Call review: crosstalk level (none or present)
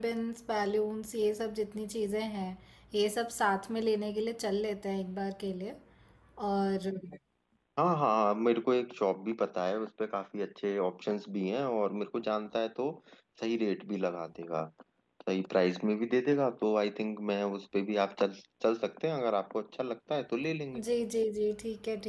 none